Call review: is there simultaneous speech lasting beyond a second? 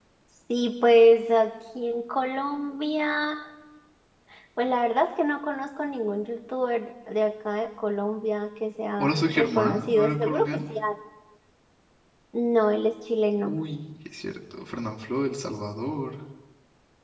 Yes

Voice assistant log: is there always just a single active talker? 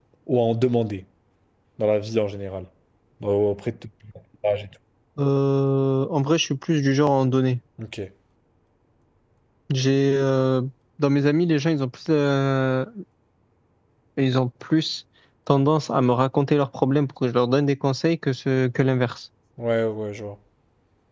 Yes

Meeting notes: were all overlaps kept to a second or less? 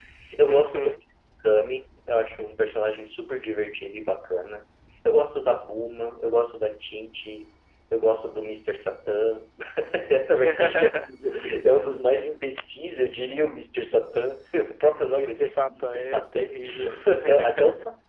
No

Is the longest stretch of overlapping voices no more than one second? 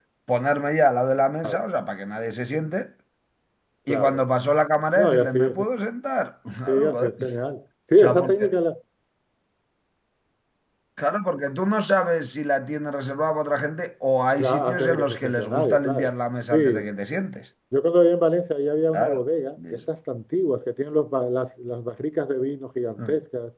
No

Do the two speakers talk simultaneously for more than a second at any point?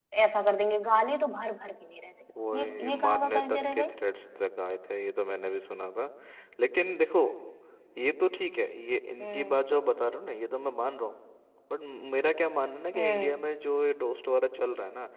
Yes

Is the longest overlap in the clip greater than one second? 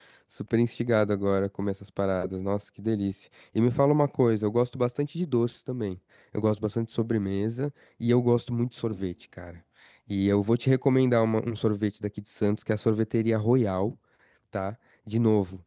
No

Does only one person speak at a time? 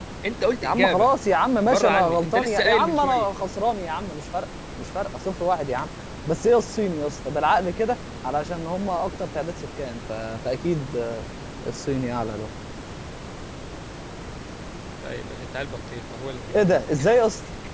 No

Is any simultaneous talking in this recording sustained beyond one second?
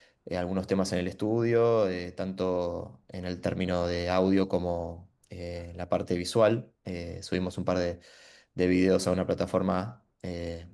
No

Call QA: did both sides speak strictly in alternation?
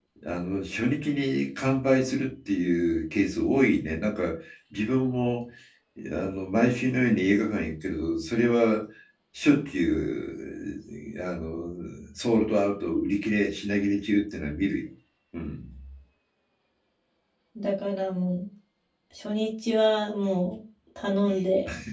Yes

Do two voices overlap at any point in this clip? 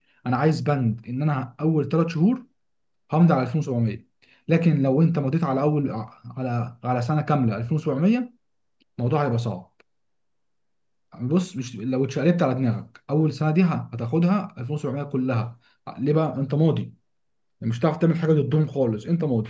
No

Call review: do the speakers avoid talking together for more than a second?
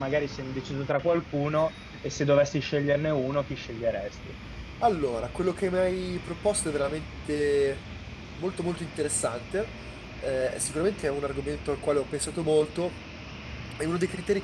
Yes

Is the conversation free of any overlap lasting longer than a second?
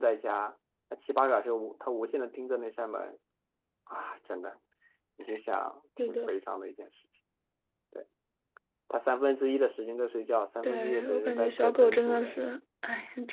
No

